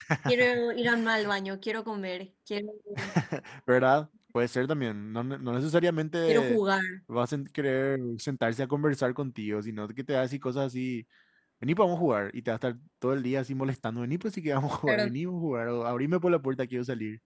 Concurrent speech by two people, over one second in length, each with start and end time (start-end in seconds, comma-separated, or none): none